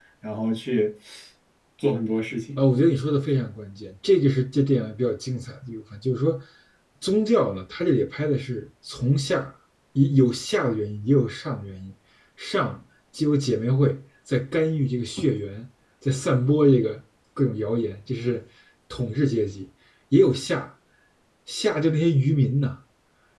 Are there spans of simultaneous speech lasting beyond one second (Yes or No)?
No